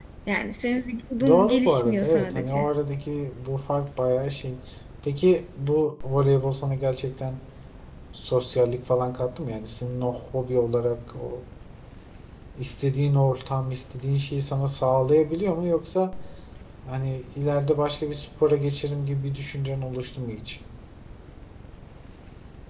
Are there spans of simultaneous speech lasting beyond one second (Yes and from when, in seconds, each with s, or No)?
Yes, from 1.2 s